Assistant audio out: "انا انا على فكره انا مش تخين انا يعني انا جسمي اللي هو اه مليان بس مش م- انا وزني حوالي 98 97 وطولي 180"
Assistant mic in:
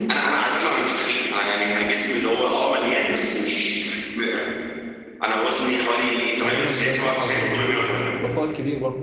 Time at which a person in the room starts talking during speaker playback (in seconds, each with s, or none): 6.4 s